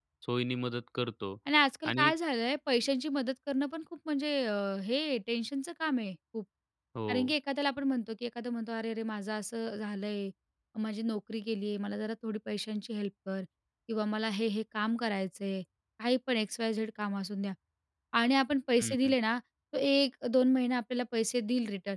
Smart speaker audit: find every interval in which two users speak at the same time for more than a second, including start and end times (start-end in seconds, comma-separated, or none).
none